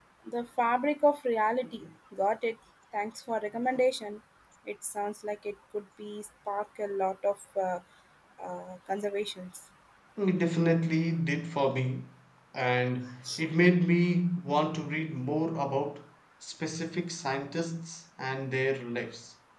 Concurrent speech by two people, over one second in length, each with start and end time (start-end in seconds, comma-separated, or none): none